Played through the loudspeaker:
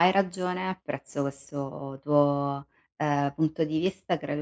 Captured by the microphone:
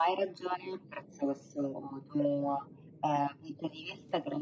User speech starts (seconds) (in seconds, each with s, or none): none